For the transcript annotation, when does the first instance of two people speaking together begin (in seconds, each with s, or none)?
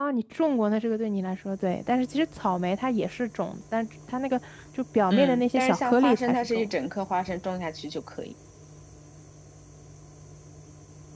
5.1 s